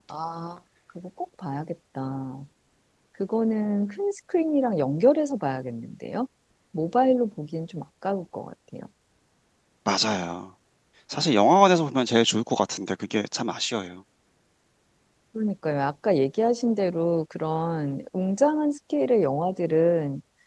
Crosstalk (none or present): none